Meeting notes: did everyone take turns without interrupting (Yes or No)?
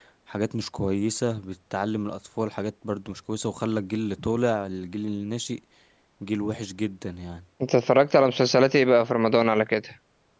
Yes